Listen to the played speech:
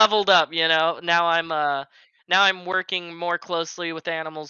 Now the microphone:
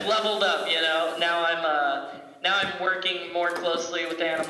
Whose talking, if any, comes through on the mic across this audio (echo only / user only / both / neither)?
echo only